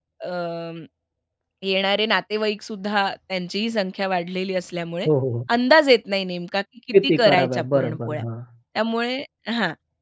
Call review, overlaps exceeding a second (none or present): present